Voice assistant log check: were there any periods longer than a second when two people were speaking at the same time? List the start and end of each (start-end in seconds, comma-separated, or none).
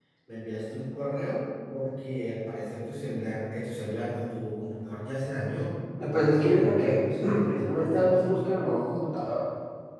6.1-8.3